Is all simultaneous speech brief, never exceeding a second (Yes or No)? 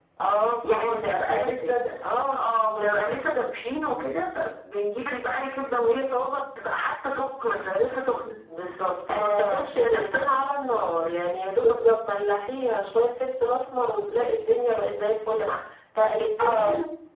No